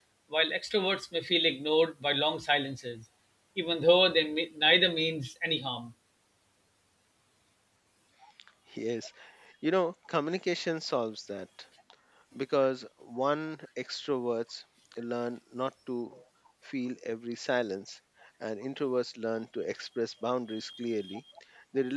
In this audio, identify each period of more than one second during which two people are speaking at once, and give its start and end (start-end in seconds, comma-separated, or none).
none